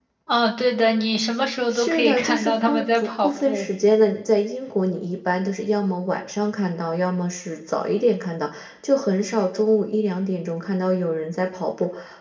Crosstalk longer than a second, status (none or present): present